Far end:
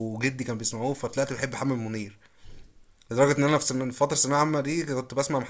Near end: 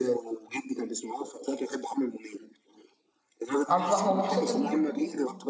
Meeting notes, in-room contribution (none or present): present